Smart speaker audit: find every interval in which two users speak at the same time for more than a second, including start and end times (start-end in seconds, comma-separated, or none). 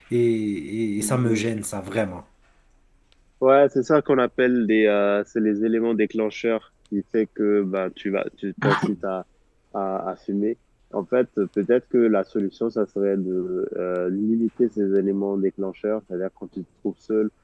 none